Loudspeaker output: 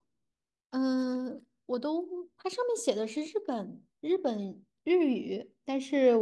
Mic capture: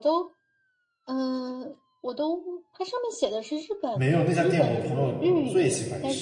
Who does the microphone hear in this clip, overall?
both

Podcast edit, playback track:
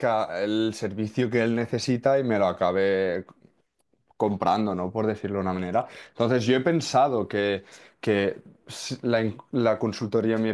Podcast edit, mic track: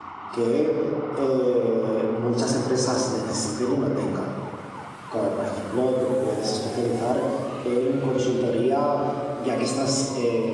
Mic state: user only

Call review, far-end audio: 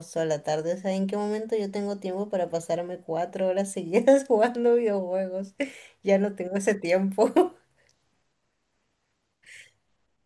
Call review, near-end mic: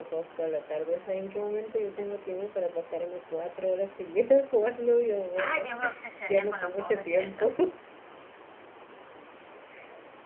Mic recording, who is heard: both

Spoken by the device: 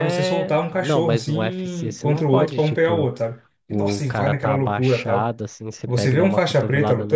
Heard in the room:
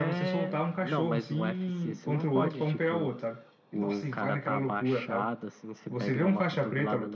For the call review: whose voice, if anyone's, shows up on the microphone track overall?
echo only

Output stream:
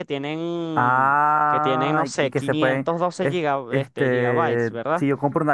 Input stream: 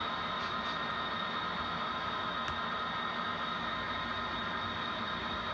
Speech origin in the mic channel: neither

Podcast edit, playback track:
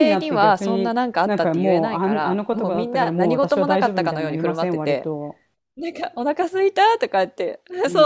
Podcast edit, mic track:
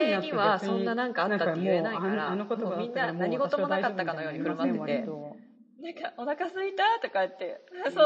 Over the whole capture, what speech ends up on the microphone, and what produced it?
both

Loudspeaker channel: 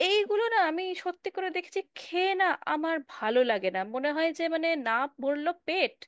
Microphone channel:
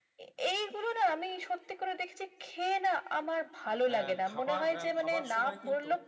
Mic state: both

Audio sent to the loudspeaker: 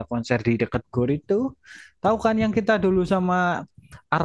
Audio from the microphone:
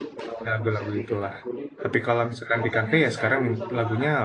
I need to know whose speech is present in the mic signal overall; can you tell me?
both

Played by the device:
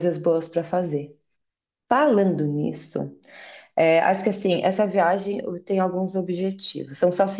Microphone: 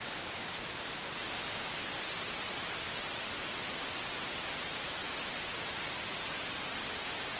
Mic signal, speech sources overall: neither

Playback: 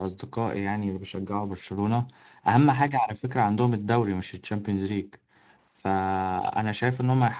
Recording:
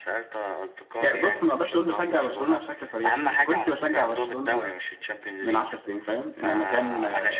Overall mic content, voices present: both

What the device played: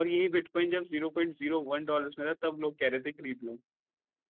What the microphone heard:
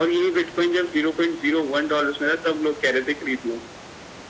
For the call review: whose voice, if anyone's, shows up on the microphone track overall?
echo only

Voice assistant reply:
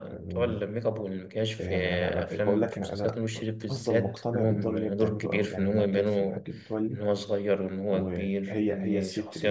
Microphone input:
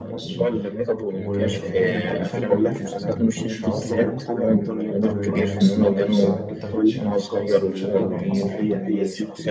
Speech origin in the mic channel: both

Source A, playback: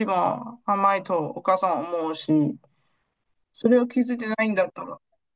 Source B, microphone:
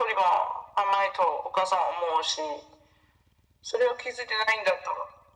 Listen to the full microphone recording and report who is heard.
echo only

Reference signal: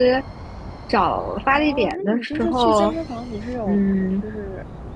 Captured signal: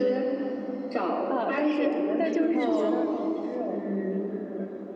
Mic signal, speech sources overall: both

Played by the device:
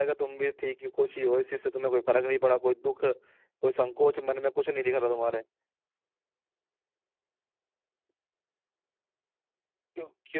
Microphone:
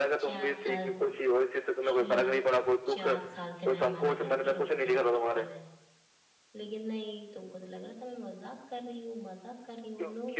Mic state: both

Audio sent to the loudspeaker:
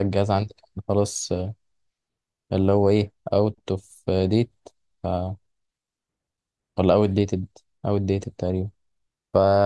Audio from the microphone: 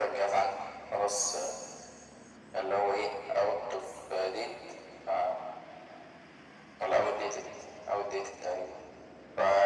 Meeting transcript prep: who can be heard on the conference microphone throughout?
echo only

